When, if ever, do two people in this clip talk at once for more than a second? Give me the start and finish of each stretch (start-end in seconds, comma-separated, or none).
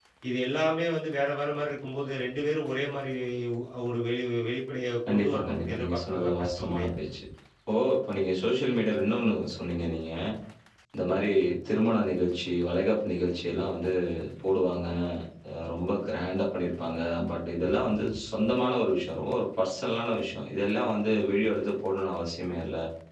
5.1-6.9